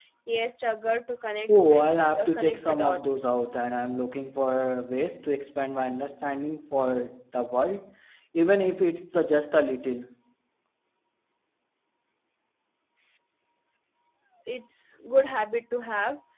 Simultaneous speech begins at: 1 s

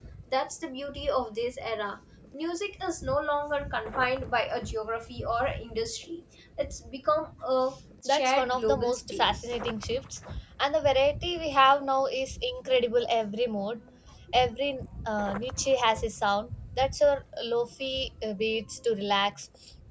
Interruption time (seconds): 8 s

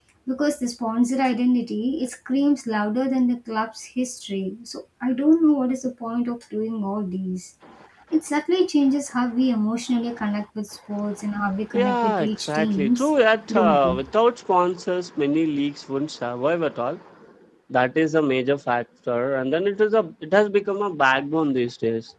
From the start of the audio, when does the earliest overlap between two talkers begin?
12 s

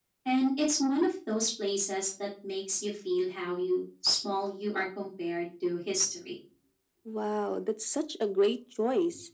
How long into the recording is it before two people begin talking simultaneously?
none

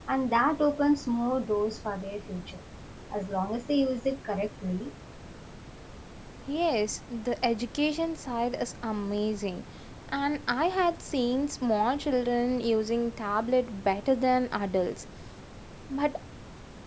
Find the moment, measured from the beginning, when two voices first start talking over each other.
none

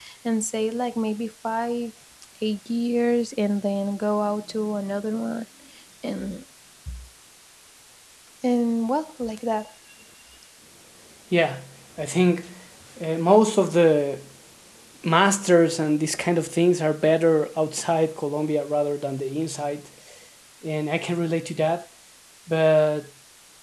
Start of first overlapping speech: none

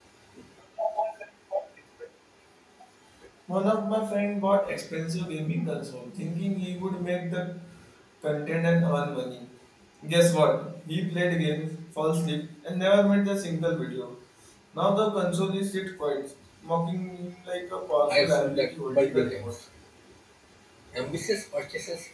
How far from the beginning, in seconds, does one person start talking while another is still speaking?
18 s

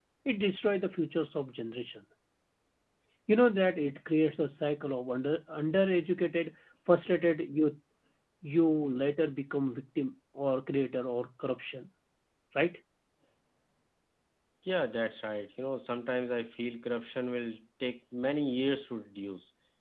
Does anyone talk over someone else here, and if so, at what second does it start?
none

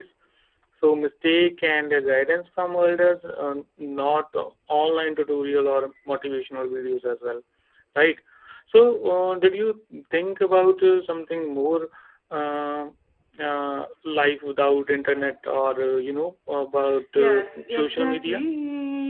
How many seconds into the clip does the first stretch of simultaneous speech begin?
17 s

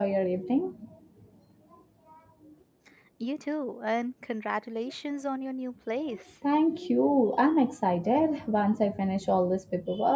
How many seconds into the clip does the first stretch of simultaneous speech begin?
none

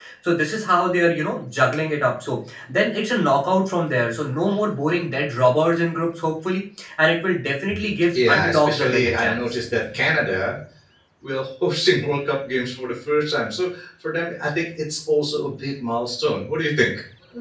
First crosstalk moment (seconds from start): 8 s

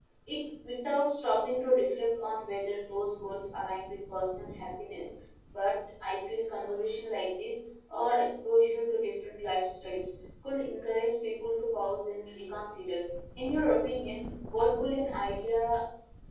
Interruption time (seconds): none

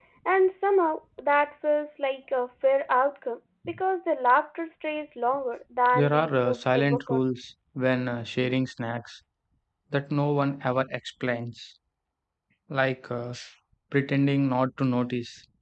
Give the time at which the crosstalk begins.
6 s

